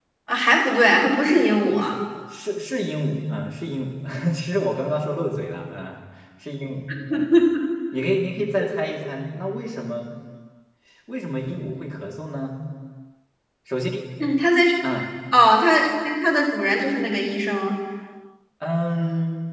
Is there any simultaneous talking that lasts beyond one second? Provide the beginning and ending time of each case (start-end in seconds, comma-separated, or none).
none